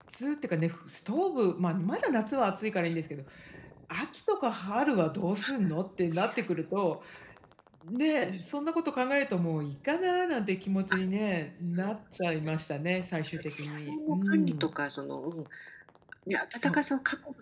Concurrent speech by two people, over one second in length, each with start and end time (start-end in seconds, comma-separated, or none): 13.4-14.7